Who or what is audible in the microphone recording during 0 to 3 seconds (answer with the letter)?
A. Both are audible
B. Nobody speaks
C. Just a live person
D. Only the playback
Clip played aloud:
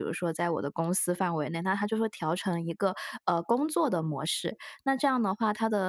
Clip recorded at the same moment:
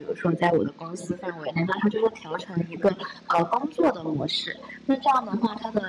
D